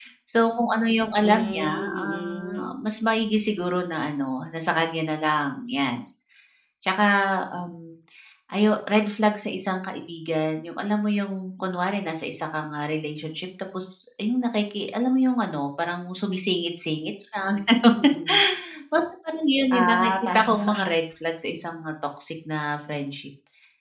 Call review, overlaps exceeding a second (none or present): present